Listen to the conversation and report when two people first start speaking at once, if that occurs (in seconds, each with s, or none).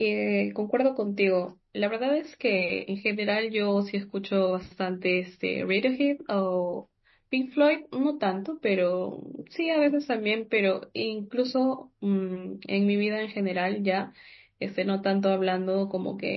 none